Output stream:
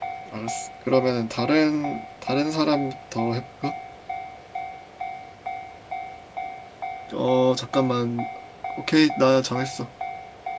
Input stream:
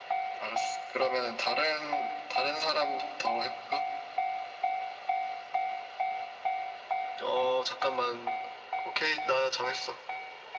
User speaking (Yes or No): No